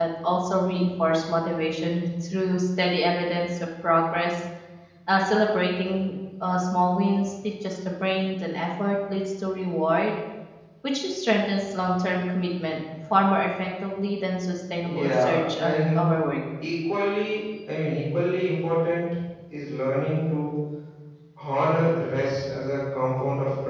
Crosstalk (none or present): present